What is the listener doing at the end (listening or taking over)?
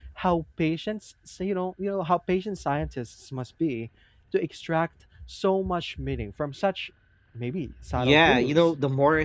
taking over